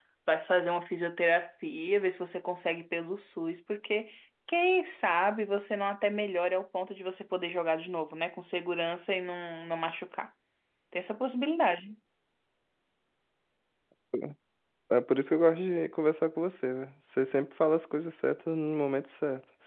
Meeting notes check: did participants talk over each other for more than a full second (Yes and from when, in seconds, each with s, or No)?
No